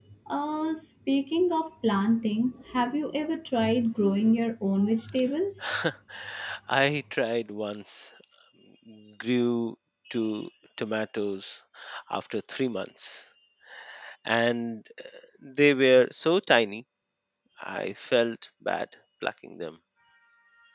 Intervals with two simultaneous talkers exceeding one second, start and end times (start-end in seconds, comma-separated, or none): none